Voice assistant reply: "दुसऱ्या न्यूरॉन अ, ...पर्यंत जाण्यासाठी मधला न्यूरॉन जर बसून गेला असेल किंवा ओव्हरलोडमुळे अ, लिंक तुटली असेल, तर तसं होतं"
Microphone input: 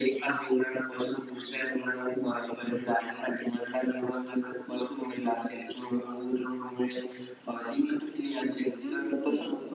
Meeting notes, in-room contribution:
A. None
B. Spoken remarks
B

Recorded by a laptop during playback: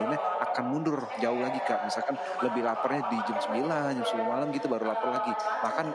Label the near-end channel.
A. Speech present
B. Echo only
A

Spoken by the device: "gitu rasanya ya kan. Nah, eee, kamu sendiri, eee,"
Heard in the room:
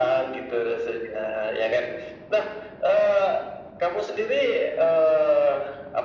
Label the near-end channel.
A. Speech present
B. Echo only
B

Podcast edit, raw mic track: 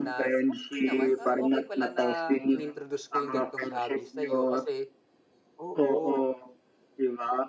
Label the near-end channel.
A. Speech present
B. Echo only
A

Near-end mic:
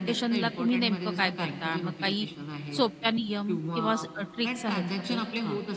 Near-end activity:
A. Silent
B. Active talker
B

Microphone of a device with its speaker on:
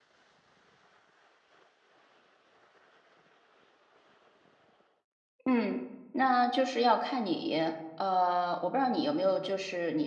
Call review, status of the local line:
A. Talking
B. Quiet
A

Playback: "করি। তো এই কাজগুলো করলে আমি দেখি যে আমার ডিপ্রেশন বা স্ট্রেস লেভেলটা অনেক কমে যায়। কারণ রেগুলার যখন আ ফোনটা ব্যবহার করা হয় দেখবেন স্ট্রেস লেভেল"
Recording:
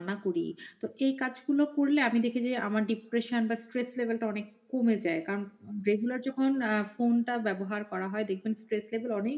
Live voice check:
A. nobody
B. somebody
A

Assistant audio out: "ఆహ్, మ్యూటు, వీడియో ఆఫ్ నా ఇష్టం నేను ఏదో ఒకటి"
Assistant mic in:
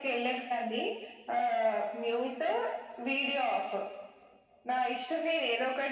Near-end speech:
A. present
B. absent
B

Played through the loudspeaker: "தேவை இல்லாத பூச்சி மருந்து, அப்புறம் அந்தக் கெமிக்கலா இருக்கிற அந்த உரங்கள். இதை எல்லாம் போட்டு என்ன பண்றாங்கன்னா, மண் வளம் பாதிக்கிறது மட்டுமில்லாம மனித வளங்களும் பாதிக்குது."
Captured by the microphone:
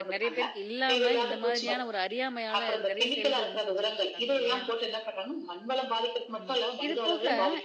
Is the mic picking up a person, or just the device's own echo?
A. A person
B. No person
A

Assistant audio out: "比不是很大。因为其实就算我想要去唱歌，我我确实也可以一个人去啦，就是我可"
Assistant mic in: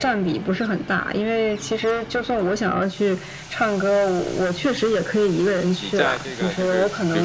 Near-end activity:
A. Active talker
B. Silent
A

